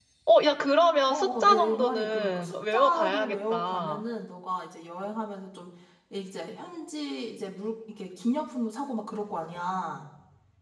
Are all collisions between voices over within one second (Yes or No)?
No